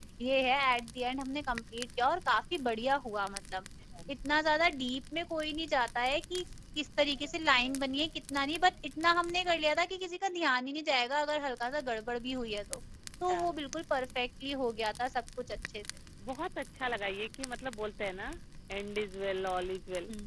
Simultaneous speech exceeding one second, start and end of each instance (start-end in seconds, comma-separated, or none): none